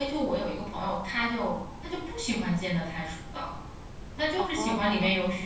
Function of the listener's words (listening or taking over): listening